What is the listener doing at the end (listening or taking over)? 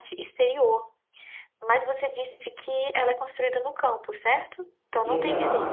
taking over